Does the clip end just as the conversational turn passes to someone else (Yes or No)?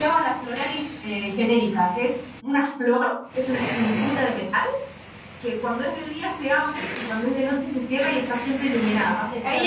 Yes